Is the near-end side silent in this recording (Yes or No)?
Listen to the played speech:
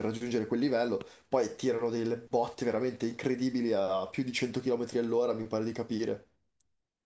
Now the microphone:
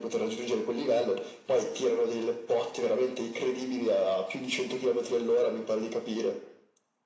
Yes